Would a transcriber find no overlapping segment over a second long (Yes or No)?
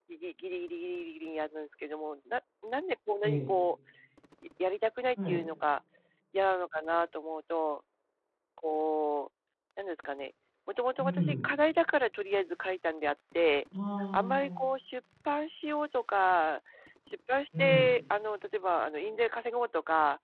Yes